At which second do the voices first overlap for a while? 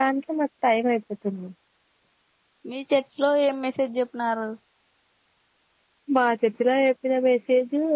none

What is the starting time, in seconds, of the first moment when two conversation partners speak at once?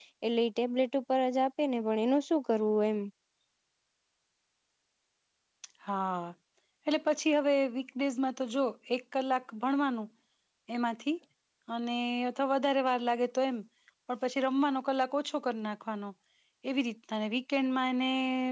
none

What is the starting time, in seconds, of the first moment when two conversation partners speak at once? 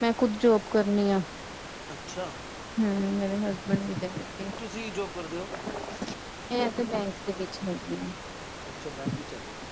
none

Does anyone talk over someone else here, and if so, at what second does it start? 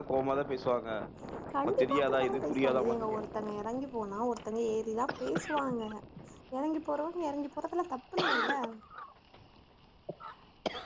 2 s

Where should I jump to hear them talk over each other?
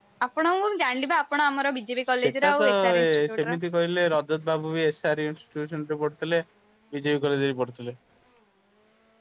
2 s

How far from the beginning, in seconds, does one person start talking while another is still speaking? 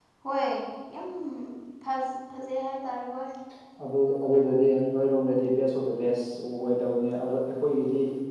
none

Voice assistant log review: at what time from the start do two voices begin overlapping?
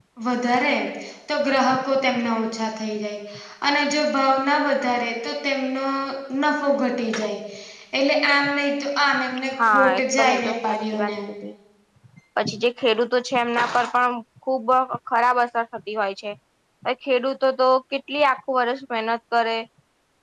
10 s

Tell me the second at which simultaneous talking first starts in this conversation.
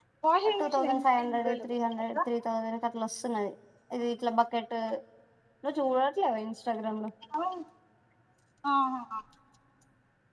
1 s

